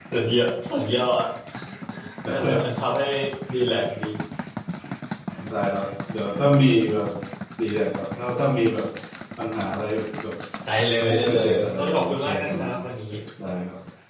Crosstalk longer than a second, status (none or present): present